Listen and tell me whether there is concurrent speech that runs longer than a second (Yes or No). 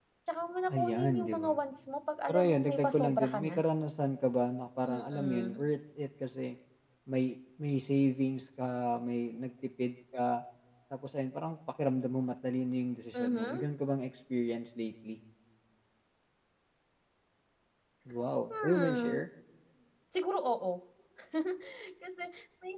Yes